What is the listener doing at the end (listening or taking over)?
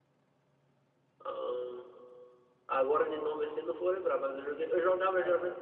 listening